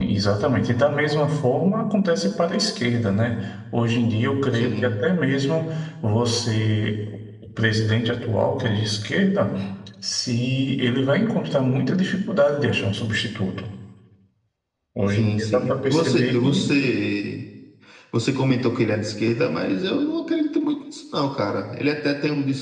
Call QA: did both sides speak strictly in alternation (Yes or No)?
No